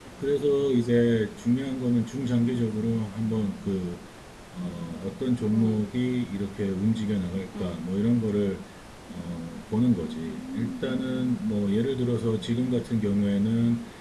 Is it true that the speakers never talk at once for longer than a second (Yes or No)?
No